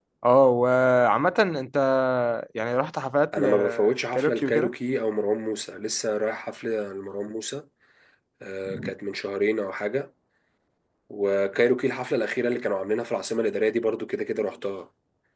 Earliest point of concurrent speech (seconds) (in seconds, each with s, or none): 3.4 s